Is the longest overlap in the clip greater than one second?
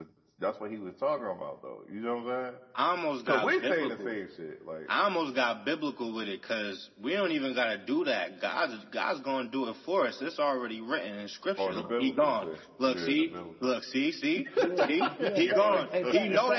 Yes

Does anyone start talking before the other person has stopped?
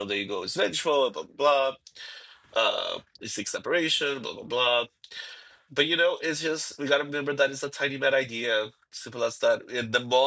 No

